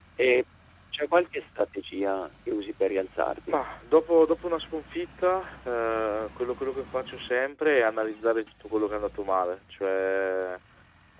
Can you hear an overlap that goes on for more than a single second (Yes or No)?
No